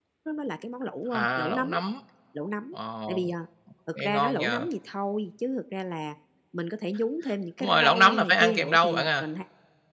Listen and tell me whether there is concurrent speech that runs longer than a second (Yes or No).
Yes